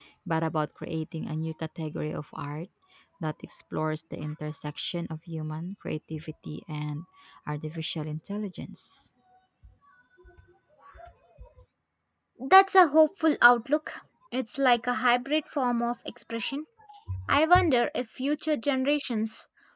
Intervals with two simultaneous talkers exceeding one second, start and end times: none

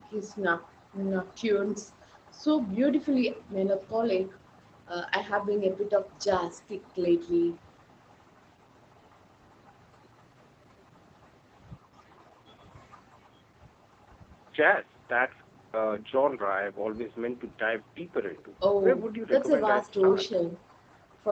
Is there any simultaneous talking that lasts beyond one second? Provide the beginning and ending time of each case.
18.8-20.2

